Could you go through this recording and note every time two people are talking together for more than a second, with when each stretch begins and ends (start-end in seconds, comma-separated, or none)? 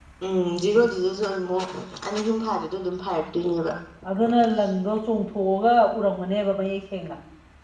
none